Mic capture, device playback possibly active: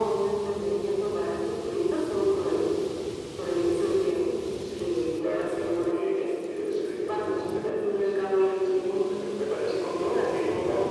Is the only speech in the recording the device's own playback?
Yes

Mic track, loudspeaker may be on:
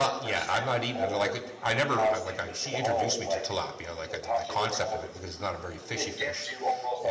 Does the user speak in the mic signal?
Yes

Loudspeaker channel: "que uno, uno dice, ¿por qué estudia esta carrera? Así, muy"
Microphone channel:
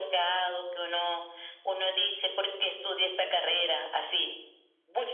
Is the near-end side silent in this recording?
Yes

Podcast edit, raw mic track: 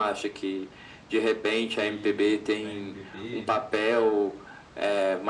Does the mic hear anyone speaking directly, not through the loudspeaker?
Yes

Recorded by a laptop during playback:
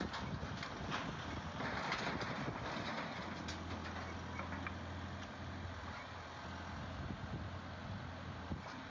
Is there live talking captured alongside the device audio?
No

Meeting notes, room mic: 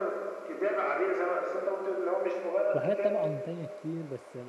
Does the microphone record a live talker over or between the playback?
Yes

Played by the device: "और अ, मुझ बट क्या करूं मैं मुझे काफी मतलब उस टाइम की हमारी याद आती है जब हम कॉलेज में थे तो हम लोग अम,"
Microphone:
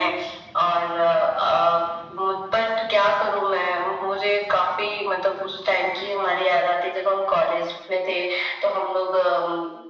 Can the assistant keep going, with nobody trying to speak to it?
Yes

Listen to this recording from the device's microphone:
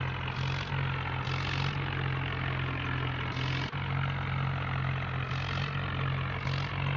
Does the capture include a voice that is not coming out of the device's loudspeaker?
No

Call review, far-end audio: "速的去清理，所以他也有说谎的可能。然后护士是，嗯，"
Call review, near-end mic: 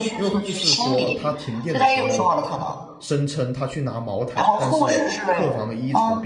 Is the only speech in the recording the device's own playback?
No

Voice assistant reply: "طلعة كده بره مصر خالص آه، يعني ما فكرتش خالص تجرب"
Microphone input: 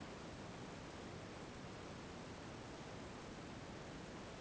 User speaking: No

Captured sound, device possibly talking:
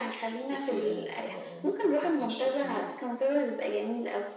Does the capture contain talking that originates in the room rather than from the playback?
No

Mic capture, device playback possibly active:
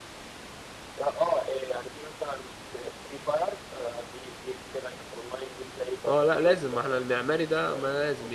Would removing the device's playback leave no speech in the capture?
No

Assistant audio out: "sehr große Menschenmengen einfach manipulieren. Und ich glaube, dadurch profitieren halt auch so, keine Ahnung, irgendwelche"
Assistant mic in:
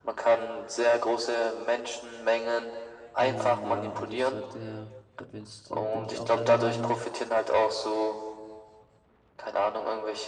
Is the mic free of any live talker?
No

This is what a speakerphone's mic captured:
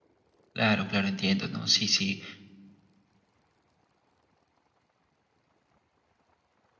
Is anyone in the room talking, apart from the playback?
Yes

